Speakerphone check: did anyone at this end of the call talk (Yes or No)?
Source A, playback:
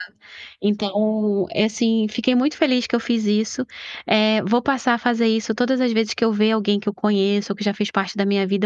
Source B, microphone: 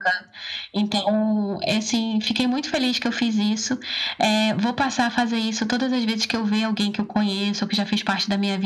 No